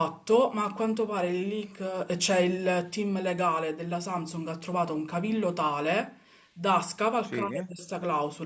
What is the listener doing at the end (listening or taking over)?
listening